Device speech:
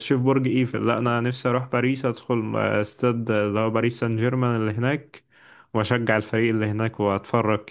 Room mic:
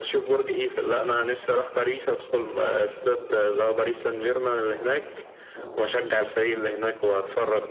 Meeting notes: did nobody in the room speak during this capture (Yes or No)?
Yes